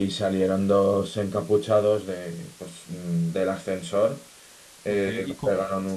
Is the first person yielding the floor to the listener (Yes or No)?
Yes